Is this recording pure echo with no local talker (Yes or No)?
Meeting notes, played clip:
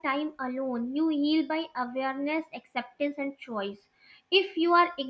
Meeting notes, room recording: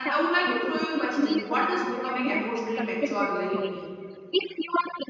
No